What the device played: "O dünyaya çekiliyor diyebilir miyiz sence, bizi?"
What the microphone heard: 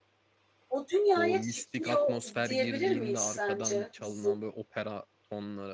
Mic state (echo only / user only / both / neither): both